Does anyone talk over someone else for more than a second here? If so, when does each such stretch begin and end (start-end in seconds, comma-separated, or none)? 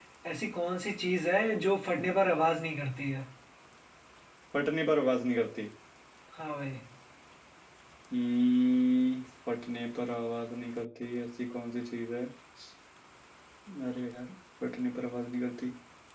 none